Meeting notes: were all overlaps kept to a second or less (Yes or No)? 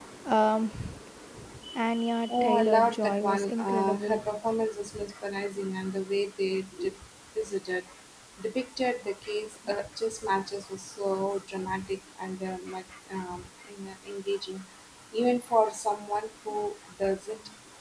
No